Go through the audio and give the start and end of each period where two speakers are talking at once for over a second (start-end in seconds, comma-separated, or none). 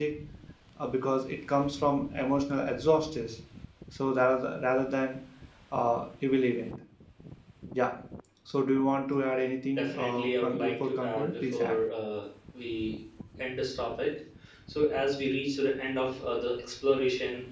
9.8-11.8